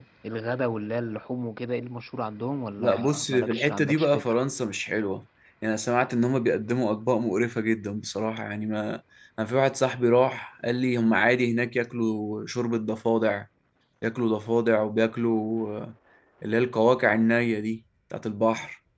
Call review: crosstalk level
present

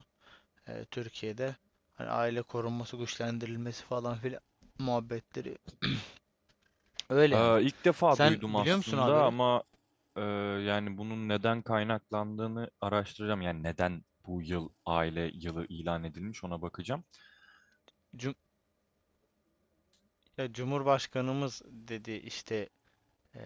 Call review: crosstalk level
present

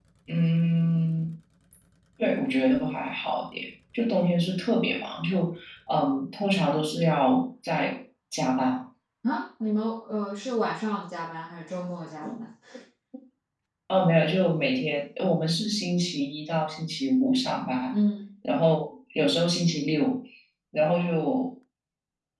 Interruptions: none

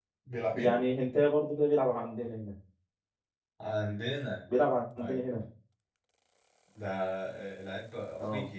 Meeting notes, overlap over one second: none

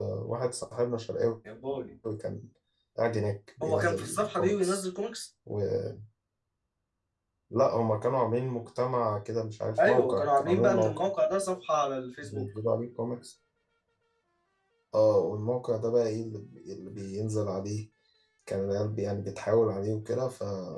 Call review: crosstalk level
present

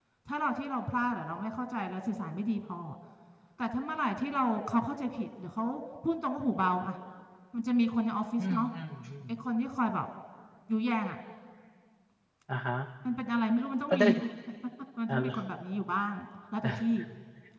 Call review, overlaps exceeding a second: none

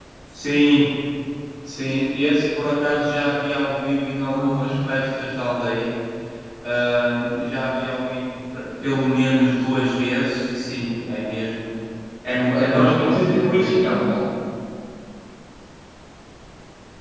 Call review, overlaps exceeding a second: present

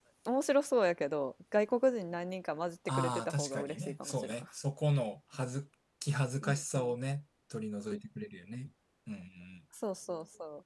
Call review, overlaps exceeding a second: present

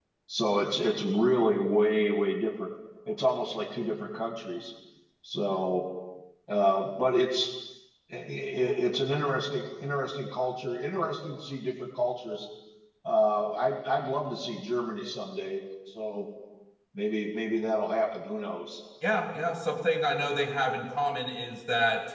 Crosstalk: none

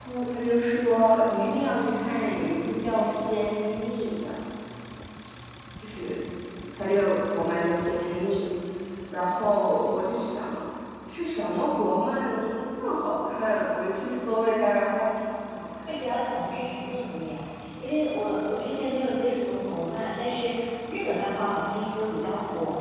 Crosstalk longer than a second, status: none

